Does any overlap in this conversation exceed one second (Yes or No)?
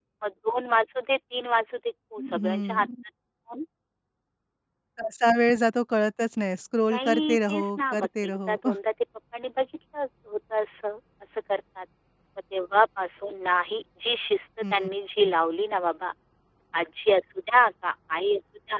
Yes